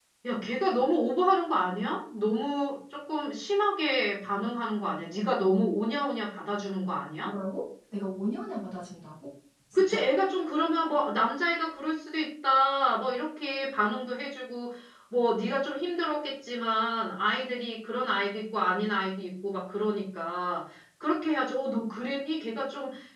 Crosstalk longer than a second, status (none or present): none